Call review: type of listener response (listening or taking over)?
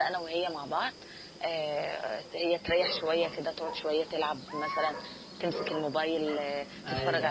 taking over